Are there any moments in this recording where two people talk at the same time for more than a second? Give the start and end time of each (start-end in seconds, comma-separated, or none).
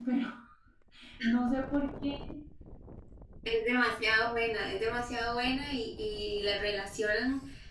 none